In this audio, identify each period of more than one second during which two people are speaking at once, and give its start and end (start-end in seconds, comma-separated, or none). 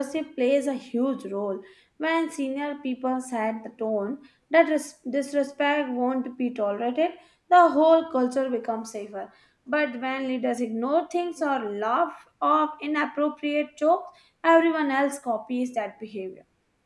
none